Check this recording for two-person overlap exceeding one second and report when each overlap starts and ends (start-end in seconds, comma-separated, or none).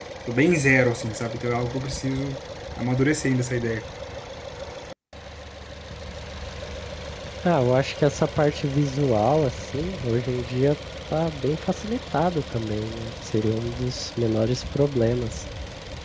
none